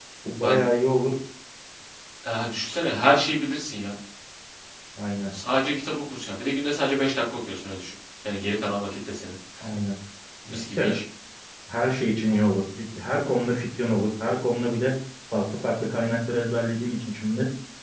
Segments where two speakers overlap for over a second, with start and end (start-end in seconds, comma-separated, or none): none